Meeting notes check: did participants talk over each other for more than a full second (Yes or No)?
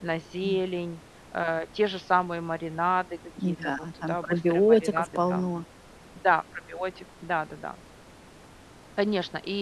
Yes